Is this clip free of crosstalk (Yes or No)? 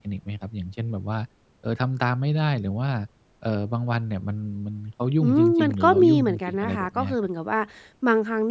No